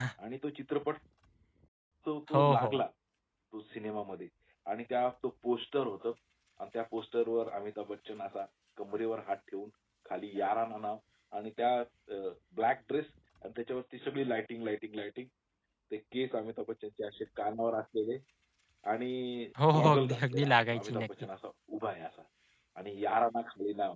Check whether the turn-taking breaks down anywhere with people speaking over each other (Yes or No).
Yes